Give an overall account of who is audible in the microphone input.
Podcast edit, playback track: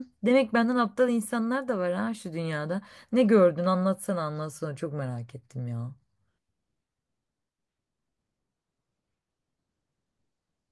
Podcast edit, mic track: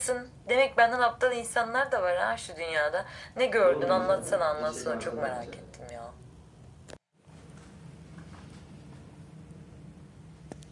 both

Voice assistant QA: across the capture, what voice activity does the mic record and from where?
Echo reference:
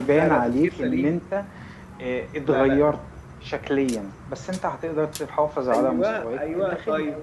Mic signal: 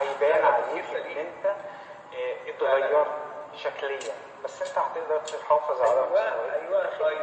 echo only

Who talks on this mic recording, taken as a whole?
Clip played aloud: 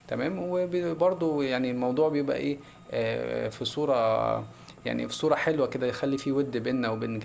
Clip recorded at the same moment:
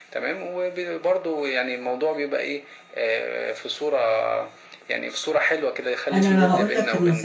both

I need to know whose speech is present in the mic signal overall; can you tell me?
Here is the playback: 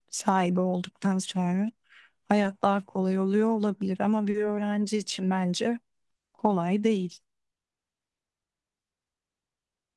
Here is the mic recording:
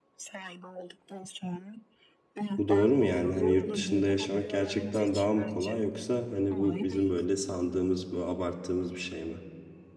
both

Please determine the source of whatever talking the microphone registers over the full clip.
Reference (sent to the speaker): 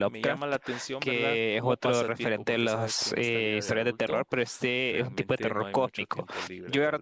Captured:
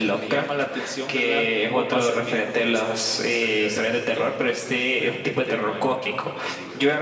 echo only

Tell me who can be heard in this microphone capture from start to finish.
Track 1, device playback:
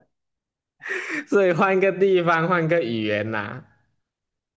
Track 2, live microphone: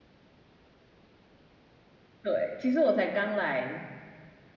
user only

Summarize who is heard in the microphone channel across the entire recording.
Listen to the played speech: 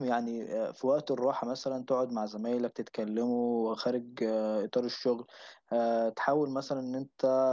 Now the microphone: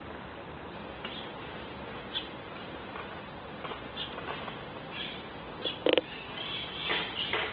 neither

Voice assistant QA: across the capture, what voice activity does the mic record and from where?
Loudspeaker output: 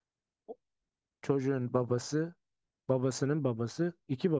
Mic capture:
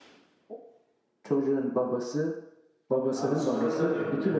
both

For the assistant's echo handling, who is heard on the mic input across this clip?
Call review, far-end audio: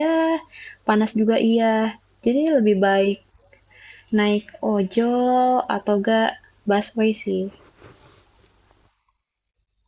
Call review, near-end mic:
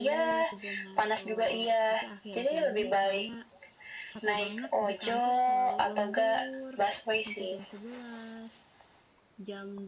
both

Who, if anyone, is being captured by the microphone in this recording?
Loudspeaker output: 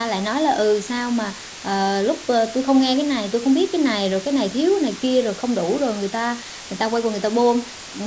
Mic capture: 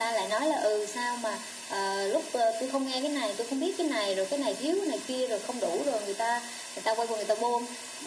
echo only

